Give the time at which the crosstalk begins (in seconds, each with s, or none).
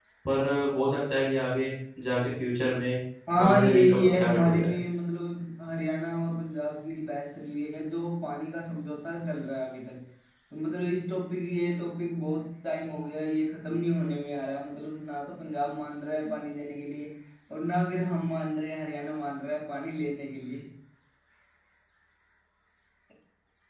3.4 s